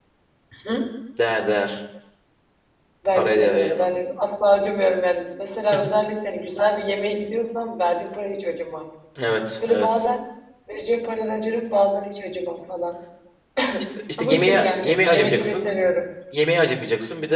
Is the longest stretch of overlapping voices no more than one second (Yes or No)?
No